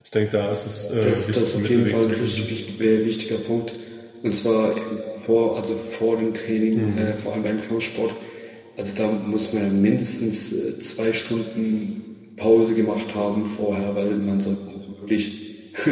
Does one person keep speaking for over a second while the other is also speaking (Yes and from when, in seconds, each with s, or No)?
Yes, from 1.0 s